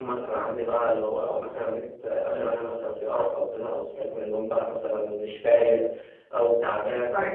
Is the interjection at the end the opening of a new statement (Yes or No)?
No